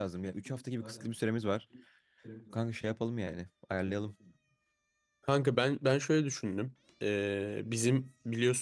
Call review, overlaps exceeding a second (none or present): none